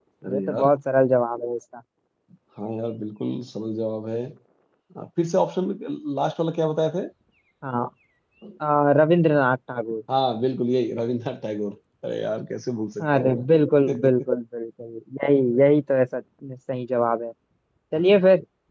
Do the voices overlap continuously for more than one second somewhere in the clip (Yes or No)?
No